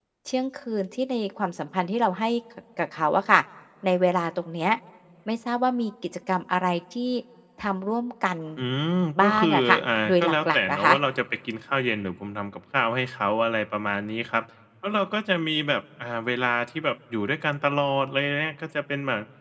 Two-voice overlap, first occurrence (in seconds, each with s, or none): 9.3 s